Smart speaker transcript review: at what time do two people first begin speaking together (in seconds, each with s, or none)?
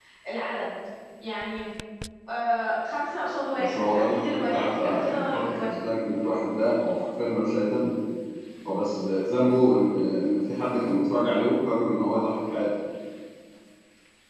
3.6 s